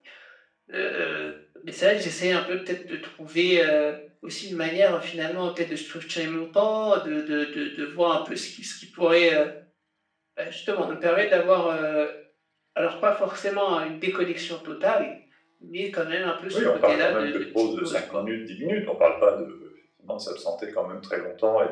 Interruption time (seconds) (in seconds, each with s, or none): 16.5 s